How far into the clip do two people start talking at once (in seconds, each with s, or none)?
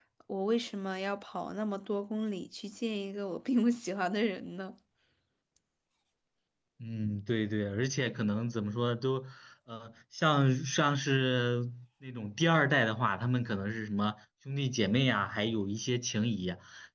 none